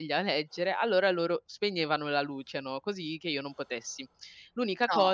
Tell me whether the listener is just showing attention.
Yes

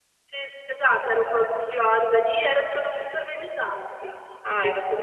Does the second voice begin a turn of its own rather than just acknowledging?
Yes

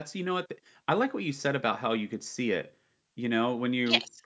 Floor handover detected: No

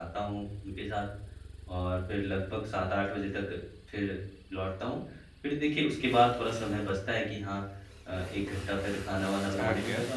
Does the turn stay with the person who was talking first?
Yes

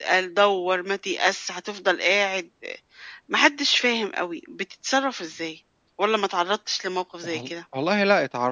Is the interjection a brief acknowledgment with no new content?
No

